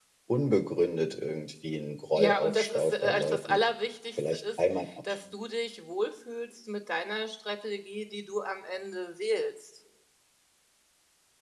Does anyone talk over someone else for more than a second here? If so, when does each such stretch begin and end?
2.1-3.6

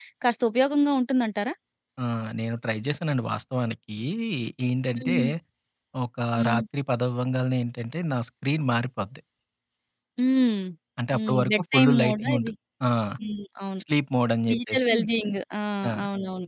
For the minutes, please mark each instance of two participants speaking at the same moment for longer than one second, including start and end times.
11.1-12.5

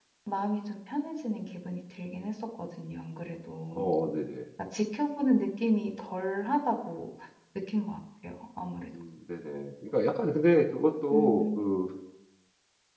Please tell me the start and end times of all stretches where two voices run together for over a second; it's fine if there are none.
none

